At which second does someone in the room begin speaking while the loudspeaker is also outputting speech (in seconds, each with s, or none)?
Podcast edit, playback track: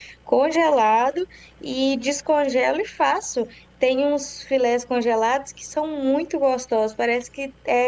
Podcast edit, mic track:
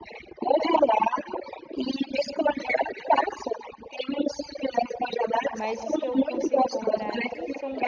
5.5 s